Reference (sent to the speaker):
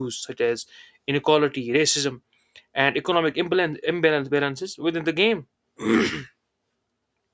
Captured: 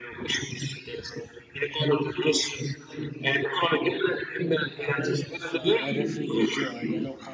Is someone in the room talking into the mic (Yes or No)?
Yes